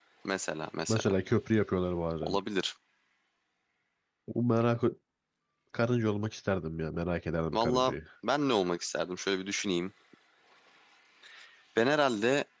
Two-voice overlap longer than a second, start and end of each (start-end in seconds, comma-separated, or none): none